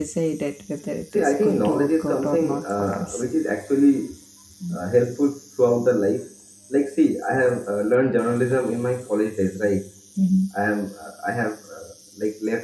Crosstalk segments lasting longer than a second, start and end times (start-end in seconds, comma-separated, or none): 1.1-3.2